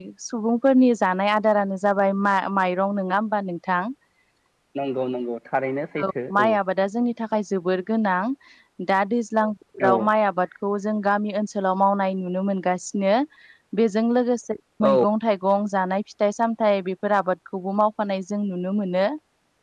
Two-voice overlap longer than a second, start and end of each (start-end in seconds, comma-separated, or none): none